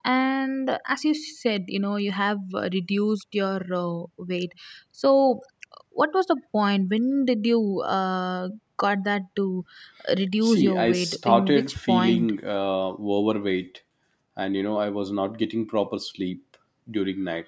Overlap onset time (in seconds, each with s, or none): 10.4 s